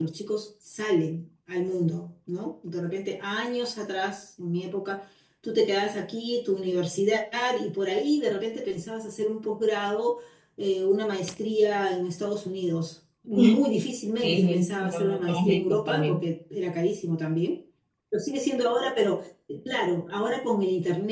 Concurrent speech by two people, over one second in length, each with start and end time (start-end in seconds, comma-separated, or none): 14.2-16.2